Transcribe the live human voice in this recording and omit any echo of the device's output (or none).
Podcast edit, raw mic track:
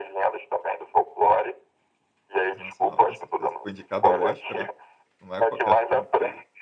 Internacional, com certeza. Foi indicado ao Oscar, né, não é qualquer filme que